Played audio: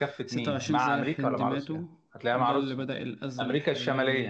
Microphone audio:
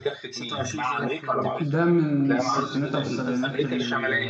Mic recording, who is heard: both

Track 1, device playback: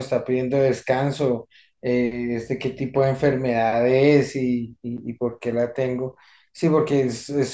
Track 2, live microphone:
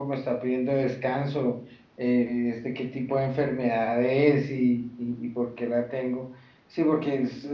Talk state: echo only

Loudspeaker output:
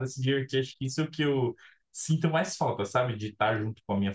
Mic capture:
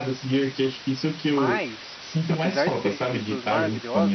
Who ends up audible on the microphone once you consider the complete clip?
both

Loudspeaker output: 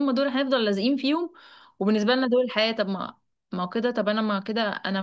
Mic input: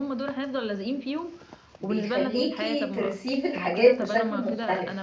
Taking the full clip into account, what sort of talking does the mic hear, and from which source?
both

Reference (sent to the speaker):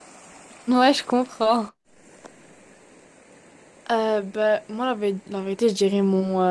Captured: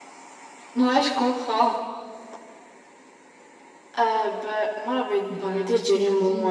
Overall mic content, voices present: both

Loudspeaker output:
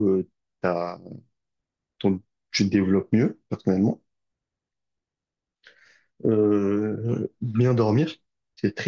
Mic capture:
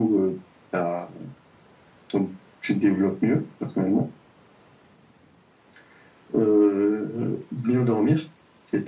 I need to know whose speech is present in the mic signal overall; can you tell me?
echo only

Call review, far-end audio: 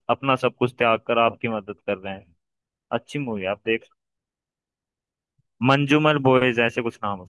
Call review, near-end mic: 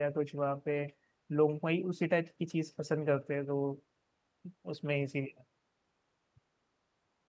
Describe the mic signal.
user only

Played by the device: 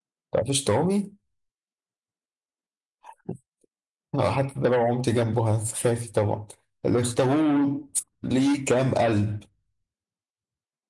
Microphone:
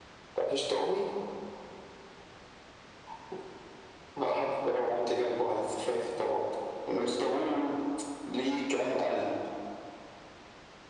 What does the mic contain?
echo only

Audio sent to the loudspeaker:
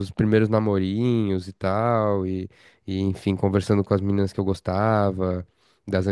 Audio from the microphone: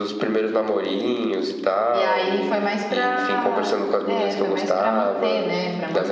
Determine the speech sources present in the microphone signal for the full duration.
both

